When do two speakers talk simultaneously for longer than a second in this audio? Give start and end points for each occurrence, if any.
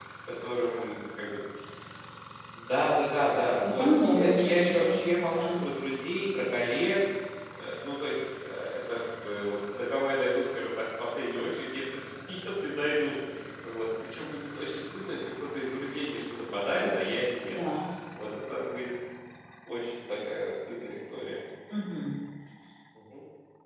3.6-5.6

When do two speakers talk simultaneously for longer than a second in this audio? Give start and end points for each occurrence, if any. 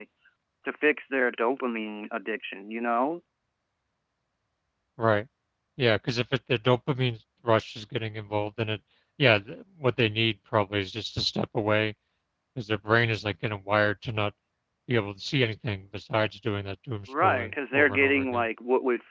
17.1-18.4

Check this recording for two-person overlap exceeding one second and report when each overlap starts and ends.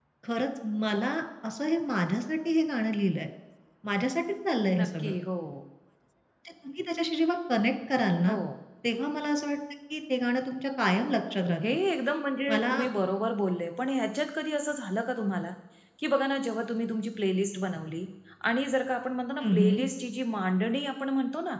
none

